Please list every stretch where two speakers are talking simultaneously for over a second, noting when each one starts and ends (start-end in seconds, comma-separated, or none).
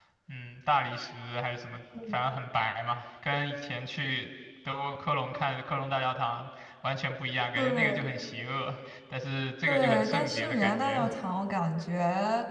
9.7-11.1